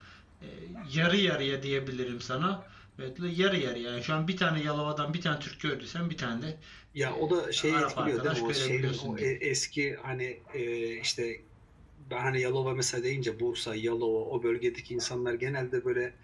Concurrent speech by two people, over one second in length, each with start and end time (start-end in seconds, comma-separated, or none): 7.1-9.2